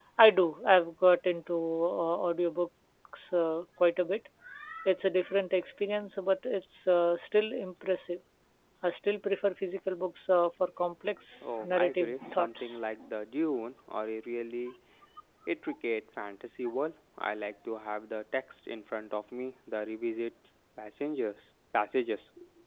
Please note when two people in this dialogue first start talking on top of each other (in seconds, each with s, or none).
11.4 s